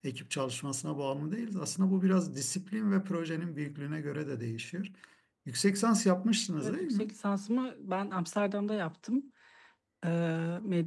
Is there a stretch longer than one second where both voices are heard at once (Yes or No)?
No